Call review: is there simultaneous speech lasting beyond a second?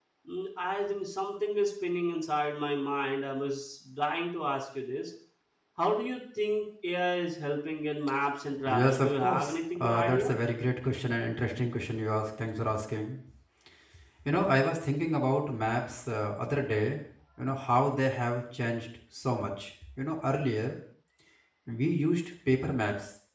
Yes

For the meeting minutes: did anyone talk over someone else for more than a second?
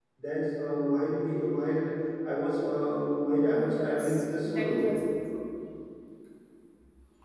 Yes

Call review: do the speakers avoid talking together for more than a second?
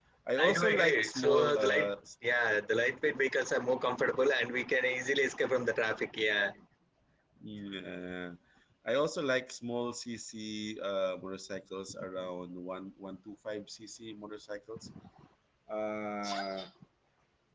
No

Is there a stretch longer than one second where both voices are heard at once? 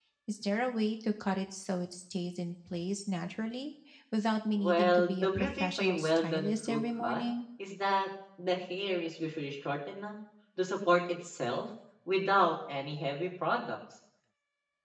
Yes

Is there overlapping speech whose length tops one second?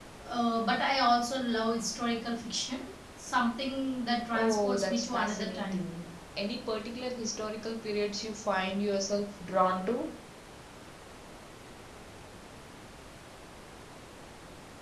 Yes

